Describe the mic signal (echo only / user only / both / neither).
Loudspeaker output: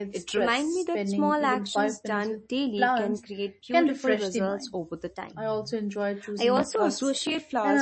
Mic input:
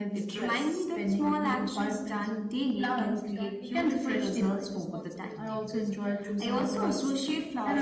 both